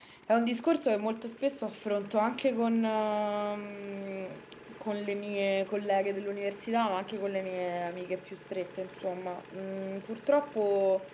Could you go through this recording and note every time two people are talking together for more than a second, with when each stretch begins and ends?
none

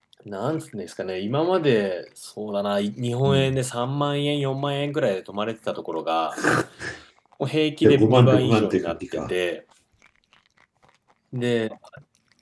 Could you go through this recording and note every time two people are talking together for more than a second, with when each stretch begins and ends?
7.8-9.3

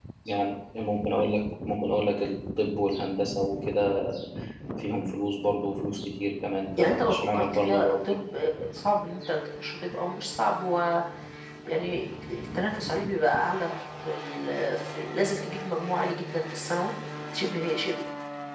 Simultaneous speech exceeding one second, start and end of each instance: 6.8-8.2

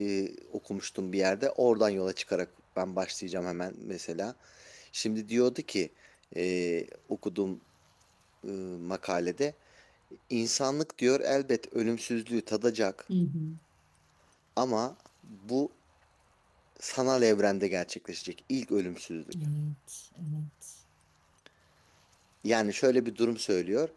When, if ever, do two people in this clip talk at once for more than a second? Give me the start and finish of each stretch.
none

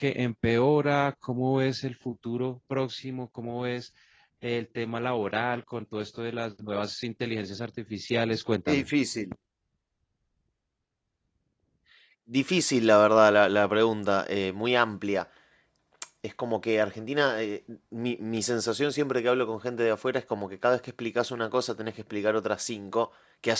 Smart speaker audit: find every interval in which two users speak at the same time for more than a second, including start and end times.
none

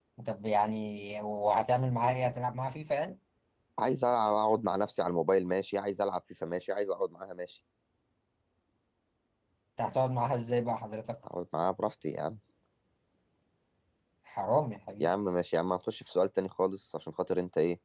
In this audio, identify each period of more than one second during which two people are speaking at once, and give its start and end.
none

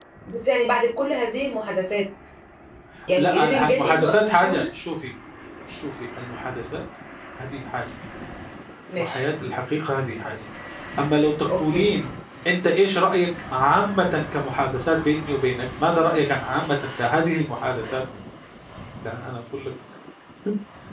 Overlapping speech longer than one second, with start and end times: 3.2-4.6

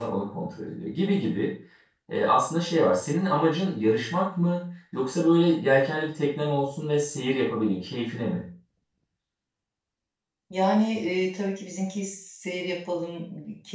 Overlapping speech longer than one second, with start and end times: none

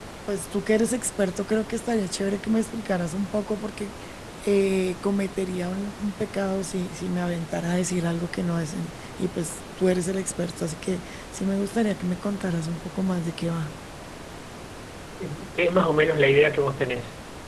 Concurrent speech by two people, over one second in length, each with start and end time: none

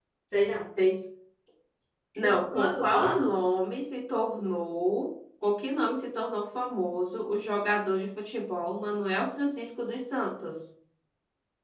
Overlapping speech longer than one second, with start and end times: 2.2-3.5

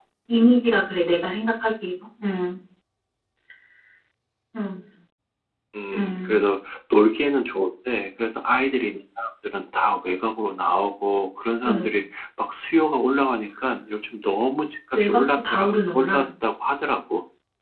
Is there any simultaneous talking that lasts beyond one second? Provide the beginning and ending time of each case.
14.9-16.3

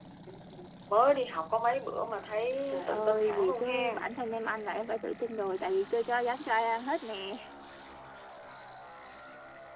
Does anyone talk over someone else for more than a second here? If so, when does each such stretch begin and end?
2.7-4.0

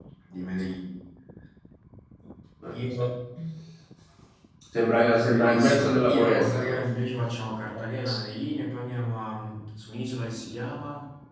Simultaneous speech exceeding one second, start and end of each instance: 5.2-6.8

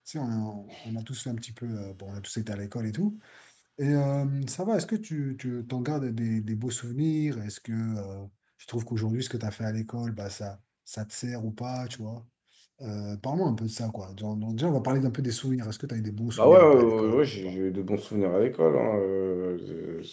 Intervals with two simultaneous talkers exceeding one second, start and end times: 16.3-17.5

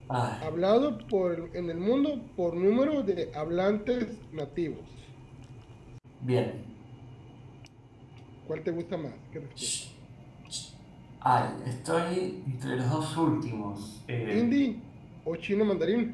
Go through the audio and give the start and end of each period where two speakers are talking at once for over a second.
none

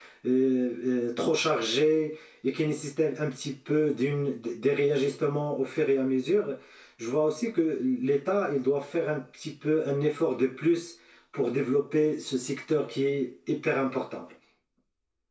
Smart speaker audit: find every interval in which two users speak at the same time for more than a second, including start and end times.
none

